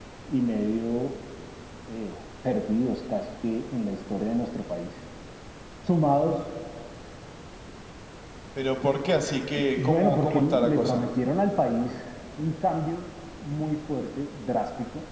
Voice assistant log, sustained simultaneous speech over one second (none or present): present